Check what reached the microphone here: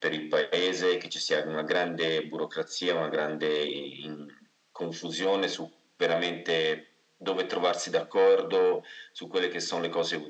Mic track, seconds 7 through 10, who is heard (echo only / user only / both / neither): echo only